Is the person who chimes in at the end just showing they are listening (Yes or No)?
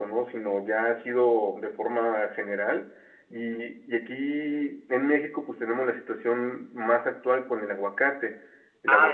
No